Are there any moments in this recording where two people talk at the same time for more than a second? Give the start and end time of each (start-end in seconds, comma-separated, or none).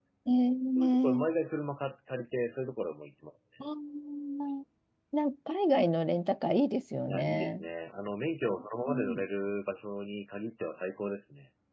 none